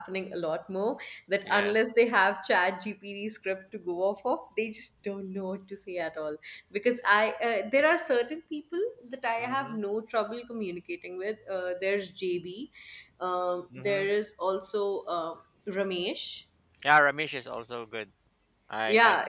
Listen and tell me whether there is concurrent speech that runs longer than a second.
No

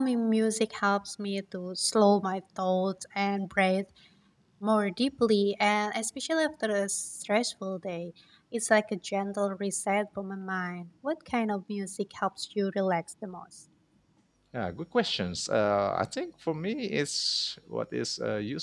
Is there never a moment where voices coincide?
Yes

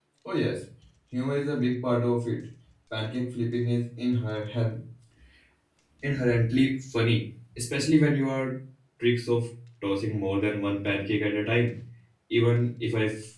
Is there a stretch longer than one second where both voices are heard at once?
No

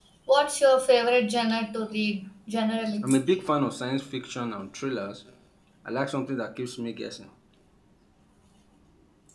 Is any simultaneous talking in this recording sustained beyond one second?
No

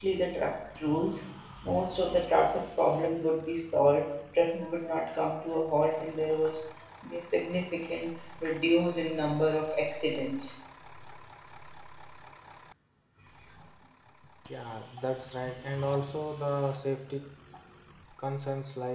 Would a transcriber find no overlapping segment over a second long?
Yes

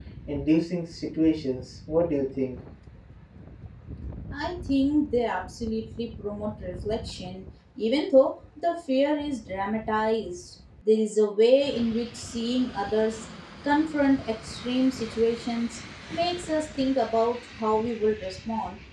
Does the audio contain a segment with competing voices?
No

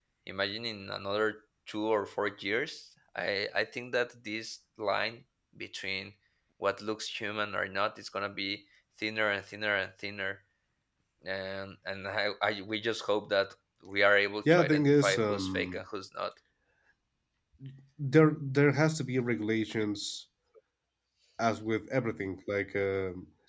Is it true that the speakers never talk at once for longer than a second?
No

